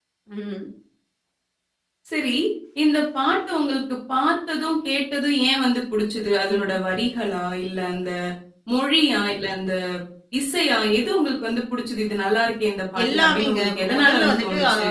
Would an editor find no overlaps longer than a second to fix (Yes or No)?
No